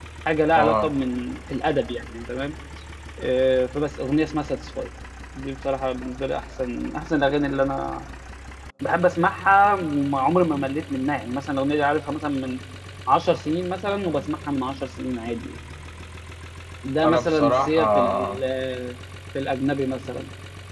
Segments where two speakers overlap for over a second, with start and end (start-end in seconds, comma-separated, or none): 17.0-18.4